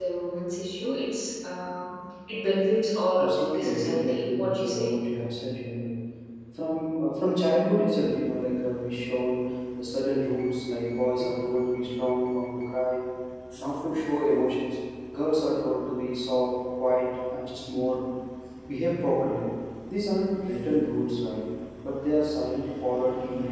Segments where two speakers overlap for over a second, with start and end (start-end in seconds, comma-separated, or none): 3.2-4.9